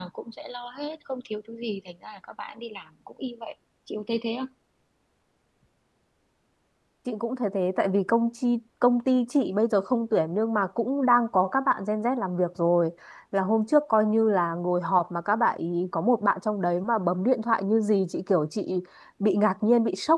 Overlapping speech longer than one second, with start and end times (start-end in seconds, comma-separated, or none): none